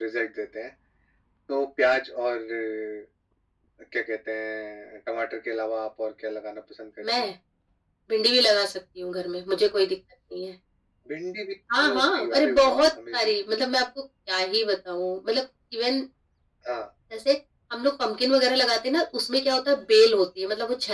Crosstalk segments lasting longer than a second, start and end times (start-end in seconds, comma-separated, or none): 11.8-13.3